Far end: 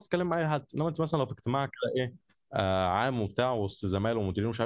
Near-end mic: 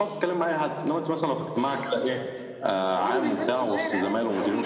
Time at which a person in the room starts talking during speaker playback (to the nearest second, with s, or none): 3 s